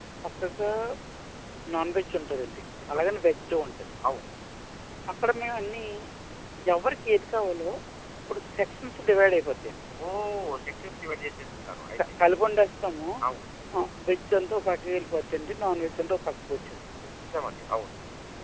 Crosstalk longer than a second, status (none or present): none